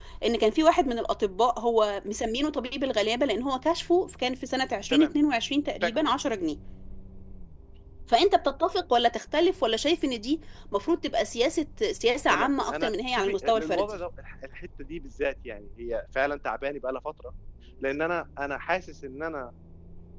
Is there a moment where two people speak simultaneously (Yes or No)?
Yes